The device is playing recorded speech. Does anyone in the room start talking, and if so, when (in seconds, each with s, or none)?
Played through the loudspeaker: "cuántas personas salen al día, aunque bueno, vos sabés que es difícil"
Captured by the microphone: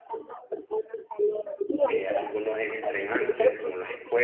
1.8 s